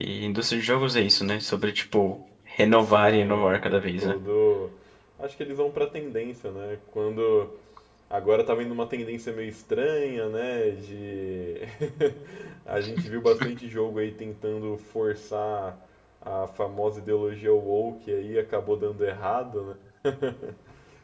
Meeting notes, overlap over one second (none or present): present